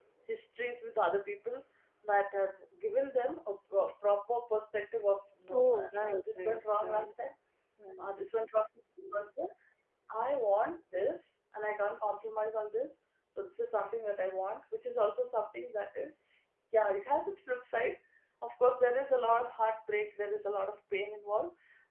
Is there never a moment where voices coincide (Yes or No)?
No